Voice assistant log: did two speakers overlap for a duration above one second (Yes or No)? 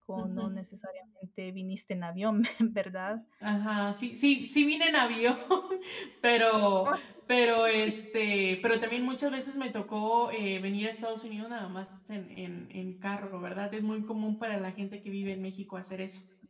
No